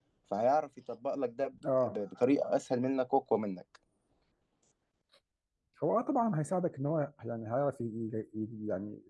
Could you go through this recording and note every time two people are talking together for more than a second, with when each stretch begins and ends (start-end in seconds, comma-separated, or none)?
none